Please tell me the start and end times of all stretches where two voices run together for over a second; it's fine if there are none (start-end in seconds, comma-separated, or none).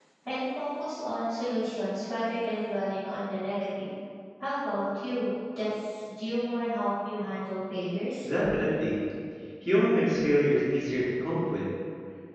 none